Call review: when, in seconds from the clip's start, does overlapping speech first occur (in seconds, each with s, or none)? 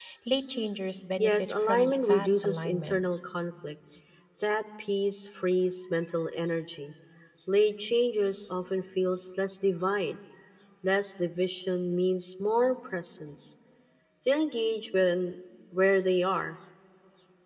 1.2 s